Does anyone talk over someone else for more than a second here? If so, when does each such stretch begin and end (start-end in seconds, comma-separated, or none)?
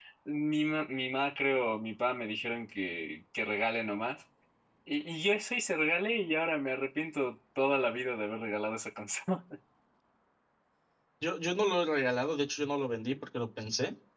none